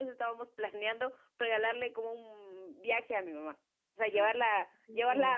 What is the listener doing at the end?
listening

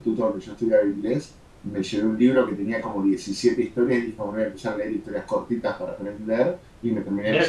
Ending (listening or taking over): taking over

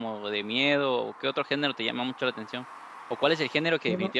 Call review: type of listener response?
listening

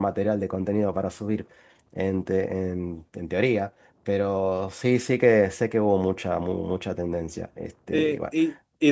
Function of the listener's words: taking over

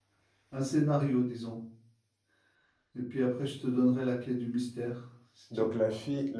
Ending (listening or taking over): taking over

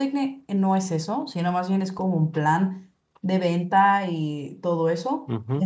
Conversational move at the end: taking over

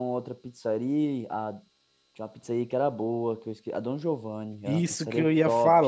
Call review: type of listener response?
taking over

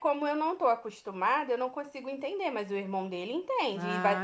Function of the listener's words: taking over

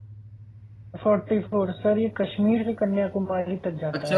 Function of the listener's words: taking over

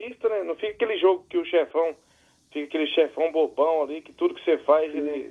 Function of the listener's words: listening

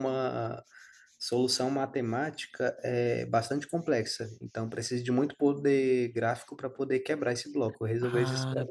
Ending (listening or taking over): taking over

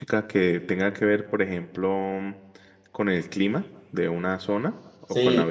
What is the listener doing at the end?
taking over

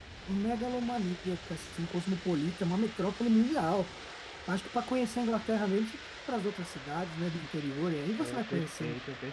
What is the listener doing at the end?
taking over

